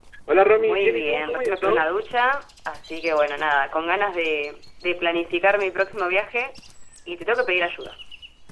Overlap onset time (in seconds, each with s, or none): 0.5 s